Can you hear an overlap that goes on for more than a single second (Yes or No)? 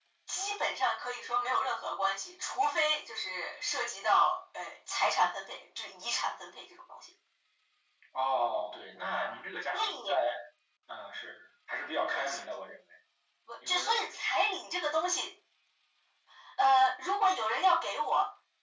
No